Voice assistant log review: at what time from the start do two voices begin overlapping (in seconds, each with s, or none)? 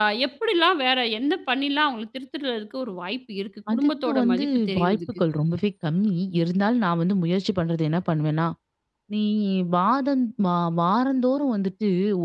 3.7 s